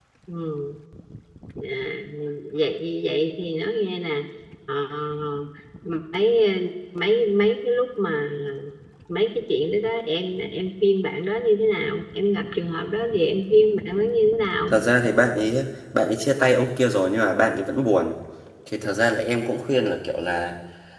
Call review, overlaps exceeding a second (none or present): none